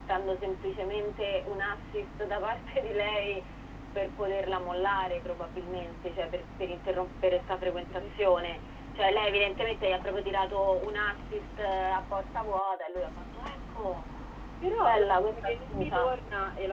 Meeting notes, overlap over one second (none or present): present